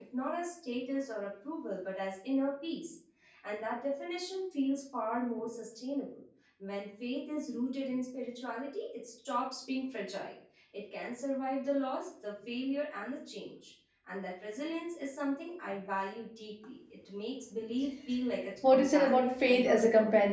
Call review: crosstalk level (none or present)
present